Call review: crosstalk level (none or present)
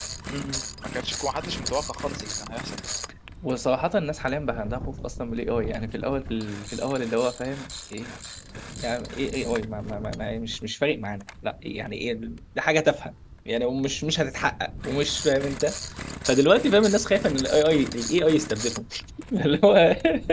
none